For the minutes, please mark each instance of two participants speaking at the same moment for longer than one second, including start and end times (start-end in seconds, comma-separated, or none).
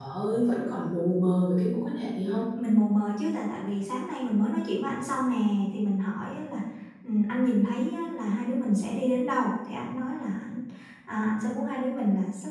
none